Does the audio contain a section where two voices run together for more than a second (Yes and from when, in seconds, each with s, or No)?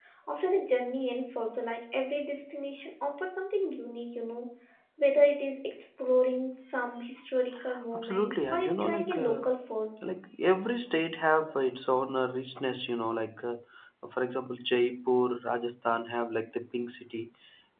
Yes, from 7.9 s